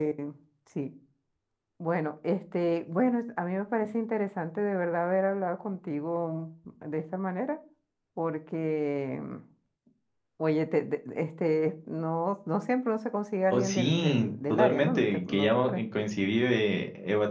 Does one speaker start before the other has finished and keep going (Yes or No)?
Yes